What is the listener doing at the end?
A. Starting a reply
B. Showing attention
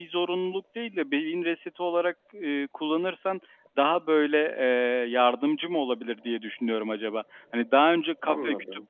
B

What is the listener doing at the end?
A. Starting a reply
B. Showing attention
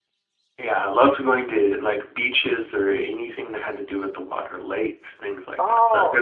B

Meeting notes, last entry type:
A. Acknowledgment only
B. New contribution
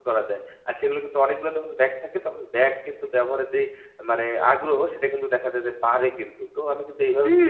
B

